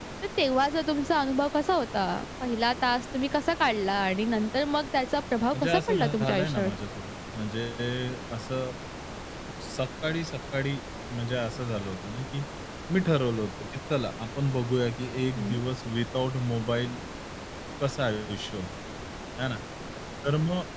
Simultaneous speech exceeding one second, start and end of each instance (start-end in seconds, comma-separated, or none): 5.5-6.7